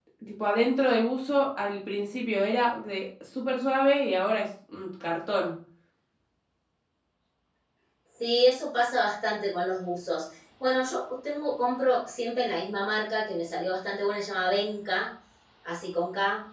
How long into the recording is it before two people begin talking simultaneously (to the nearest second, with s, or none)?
none